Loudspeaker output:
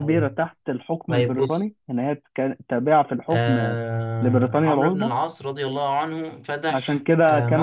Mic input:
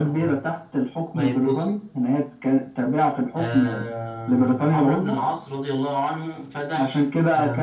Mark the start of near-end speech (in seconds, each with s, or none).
none